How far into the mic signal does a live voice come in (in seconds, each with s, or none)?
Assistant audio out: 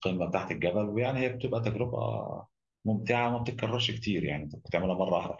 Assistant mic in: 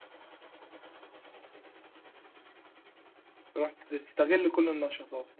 3.5 s